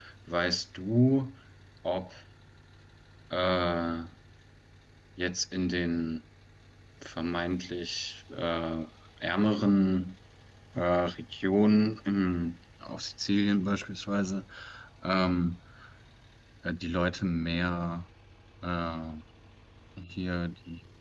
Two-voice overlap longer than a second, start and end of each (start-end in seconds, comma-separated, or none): none